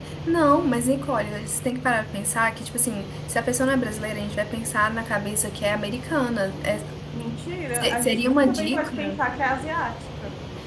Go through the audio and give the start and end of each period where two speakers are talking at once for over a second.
7.7-9.2

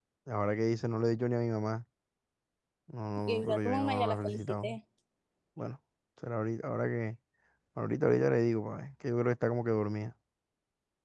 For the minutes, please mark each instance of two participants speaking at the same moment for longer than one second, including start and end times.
3.3-4.8

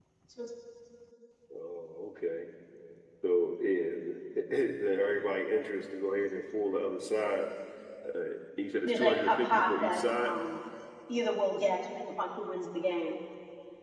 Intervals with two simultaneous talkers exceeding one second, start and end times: 8.8-10.3

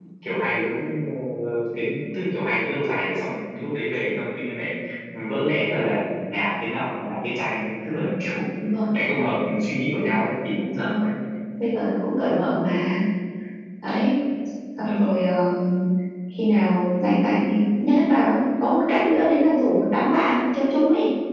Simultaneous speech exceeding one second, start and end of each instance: none

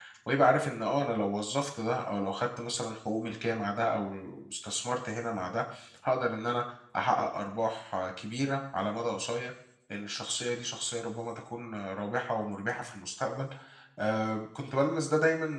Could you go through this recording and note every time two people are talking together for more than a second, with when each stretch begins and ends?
none

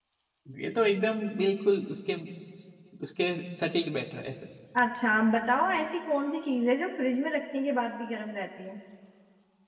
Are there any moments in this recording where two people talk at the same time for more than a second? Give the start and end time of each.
none

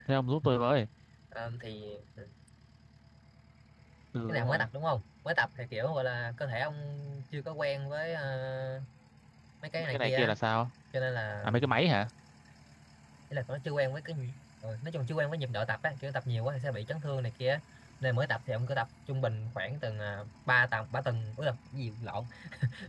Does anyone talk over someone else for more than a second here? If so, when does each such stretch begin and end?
none

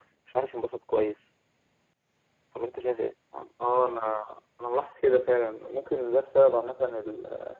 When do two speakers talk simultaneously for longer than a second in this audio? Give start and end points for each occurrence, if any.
none

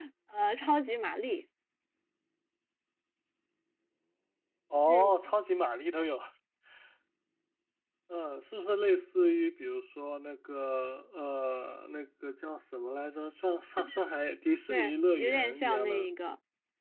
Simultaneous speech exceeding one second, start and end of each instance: 14.7-16.1

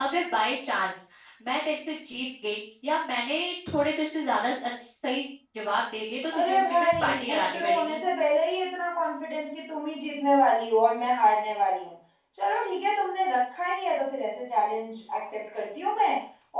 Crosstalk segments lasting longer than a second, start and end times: 6.4-8.0

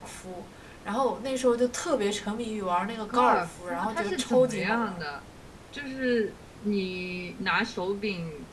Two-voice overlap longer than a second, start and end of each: 3.1-5.0

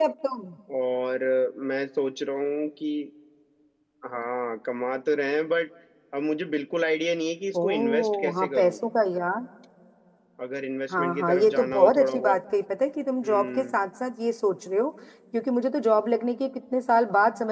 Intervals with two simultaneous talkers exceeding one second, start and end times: 7.6-8.8, 10.9-12.4

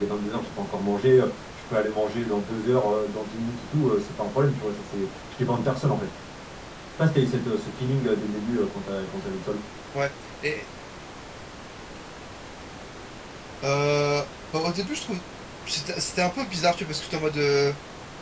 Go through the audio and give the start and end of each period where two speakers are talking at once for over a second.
none

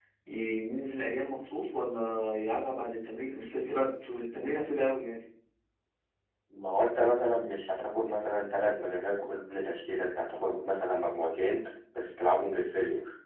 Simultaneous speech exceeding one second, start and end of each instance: none

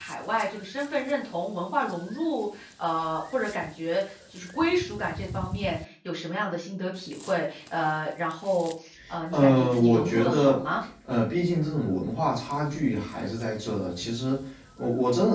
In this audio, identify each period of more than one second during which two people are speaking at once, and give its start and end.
9.3-10.6

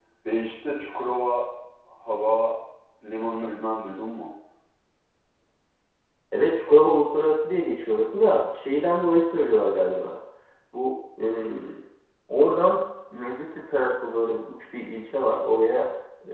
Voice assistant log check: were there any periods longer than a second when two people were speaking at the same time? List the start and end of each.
none

